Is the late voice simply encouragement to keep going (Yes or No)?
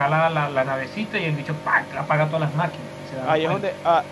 No